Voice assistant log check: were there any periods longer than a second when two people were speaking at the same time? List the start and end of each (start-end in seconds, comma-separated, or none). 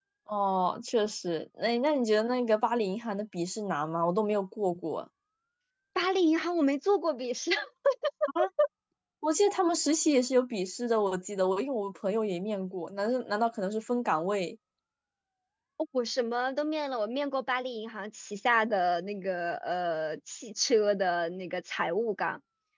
none